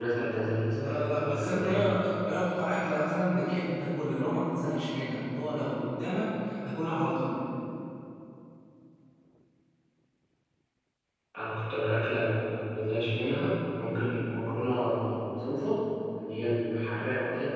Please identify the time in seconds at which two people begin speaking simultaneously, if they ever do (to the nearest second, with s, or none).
1 s